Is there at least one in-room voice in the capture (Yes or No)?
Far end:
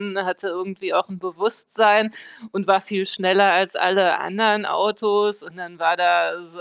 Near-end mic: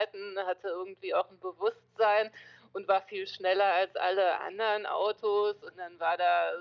No